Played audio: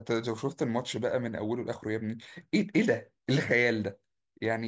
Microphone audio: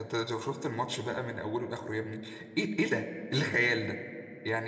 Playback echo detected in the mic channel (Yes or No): Yes